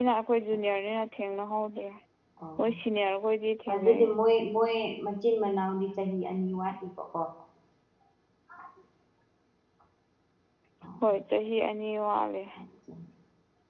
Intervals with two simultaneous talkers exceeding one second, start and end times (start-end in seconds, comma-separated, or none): none